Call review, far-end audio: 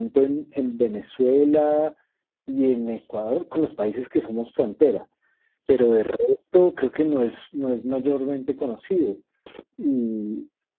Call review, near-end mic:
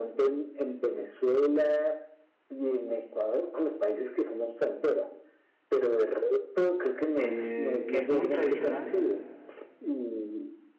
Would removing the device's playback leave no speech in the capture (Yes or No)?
No